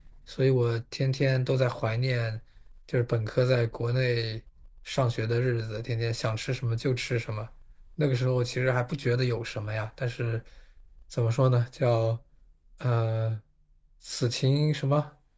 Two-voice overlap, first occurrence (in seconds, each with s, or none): none